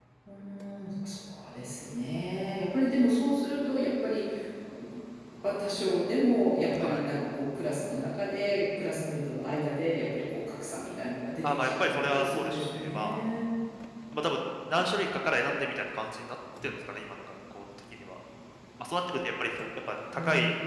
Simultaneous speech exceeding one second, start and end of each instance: 11.4-13.2

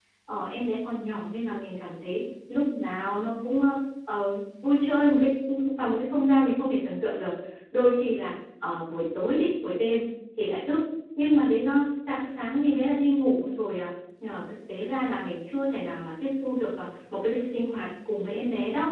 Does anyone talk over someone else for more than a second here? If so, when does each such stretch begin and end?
none

